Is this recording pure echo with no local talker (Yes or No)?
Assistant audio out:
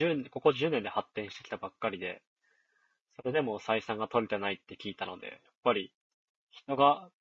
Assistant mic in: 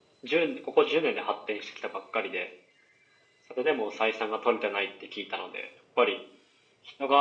Yes